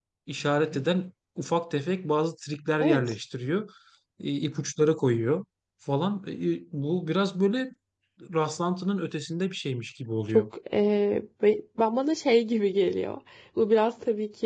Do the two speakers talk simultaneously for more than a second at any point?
No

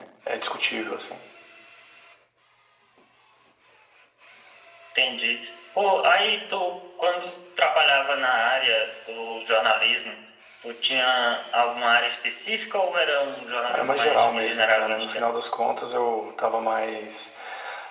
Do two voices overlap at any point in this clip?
Yes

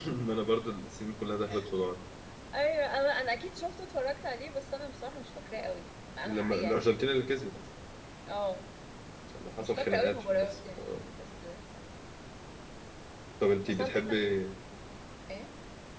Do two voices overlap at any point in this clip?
Yes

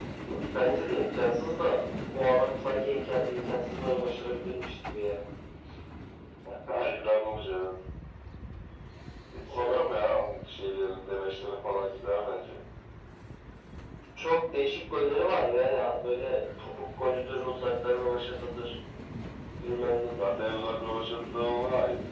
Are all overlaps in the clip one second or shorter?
Yes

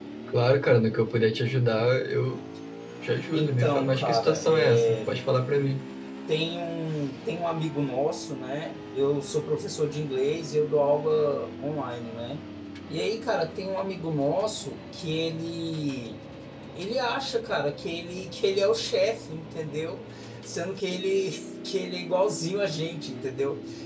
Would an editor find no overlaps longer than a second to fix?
No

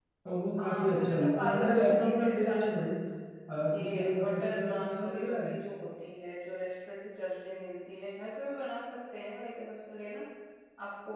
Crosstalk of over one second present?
Yes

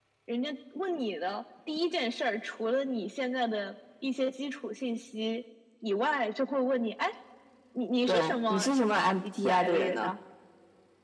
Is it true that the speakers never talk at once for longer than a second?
No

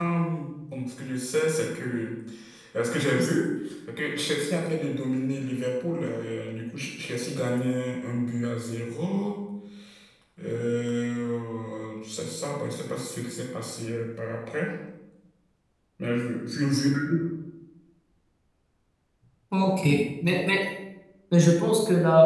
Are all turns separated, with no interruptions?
Yes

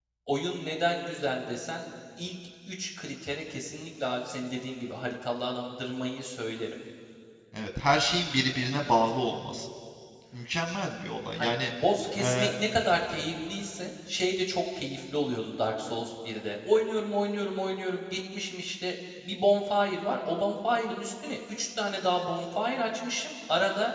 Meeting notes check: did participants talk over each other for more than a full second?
No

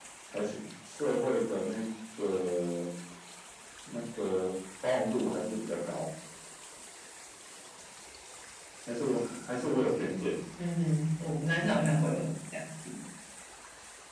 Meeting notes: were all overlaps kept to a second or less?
Yes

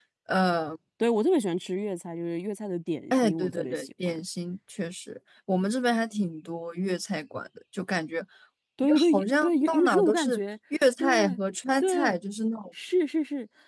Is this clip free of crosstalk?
No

